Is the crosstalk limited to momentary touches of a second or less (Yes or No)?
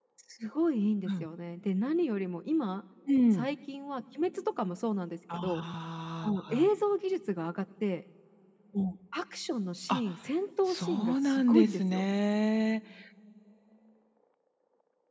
No